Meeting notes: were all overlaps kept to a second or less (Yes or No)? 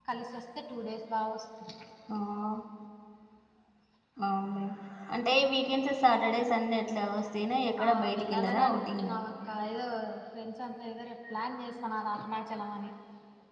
No